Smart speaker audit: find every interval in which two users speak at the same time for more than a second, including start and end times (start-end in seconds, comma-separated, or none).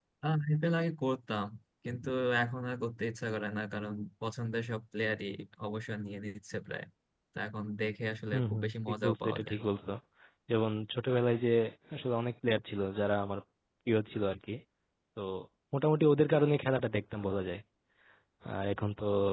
8.3-9.6